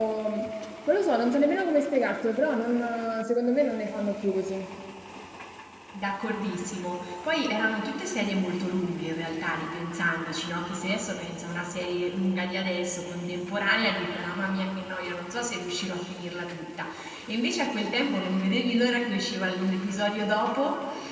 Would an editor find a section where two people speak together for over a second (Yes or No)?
No